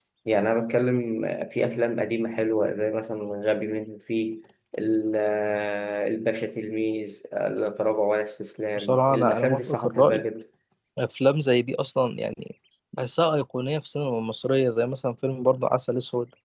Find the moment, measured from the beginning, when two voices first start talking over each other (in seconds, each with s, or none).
8.8 s